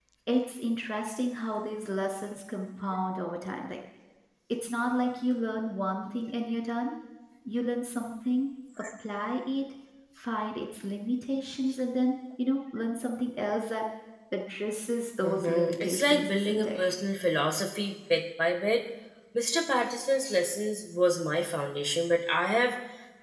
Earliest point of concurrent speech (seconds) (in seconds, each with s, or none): 15.2 s